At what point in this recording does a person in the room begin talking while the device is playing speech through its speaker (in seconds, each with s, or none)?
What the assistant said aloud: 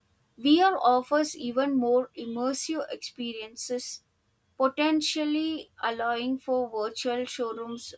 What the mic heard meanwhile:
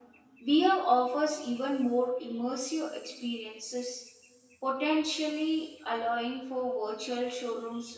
none